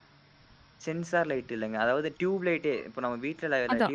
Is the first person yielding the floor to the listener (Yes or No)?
Yes